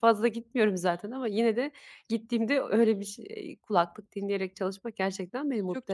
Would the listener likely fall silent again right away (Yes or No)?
No